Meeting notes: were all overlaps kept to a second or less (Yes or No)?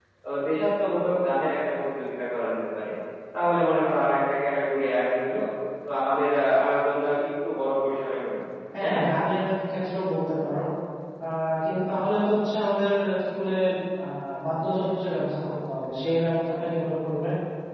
Yes